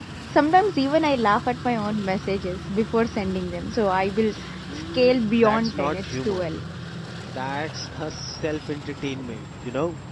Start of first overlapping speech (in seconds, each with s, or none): 4.7 s